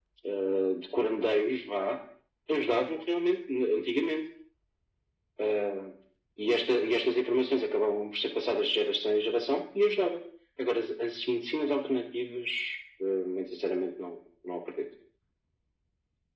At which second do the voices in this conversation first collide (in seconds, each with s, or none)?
none